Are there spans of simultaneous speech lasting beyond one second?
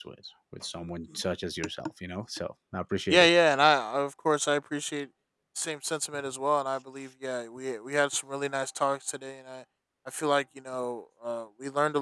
No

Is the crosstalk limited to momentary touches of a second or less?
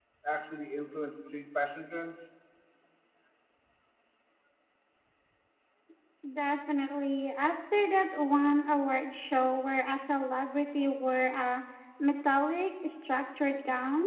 Yes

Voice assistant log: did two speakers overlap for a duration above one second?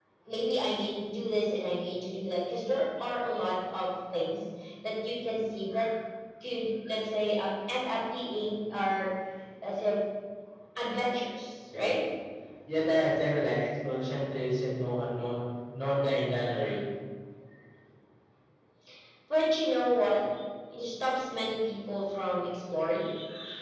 No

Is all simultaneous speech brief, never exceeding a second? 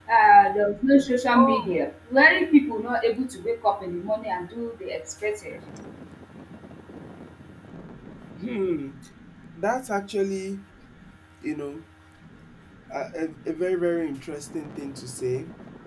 Yes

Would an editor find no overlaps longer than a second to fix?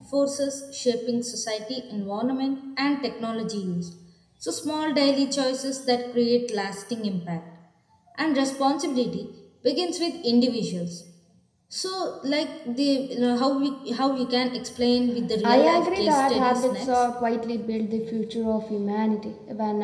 No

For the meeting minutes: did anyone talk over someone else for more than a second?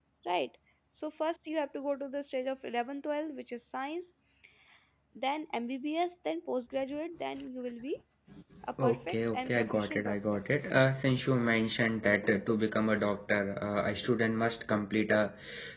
Yes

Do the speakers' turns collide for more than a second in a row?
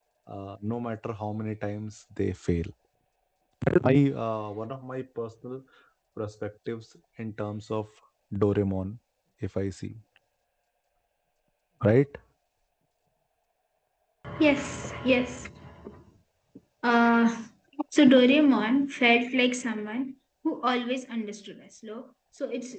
No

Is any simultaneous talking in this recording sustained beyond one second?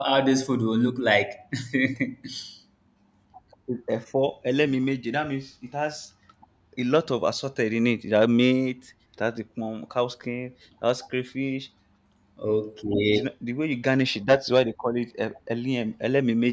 No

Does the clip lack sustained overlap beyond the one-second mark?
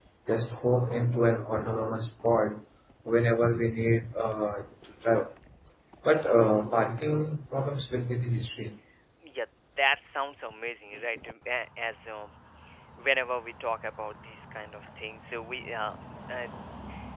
Yes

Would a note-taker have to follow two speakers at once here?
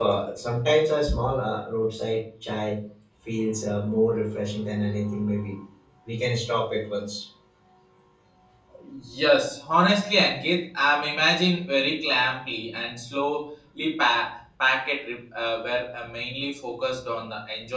No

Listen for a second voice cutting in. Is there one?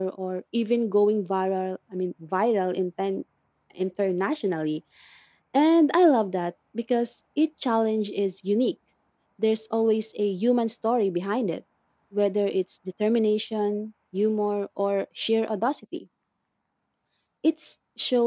No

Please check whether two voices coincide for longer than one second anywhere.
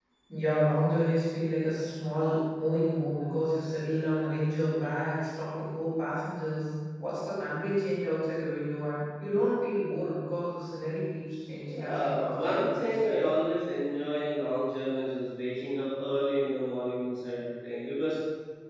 Yes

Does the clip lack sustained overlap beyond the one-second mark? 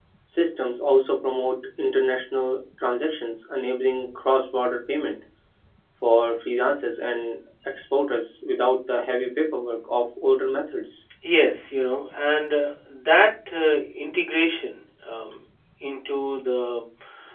Yes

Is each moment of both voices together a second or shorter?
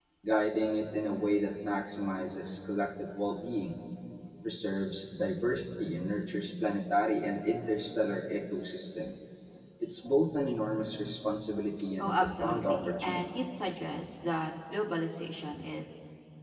No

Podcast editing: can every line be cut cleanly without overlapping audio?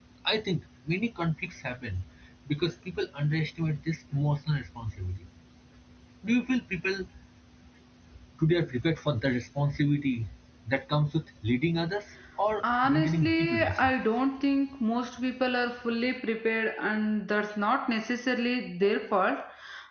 No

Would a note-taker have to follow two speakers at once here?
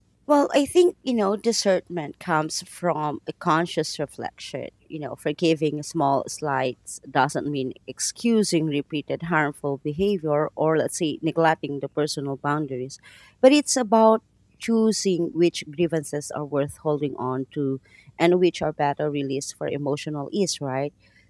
No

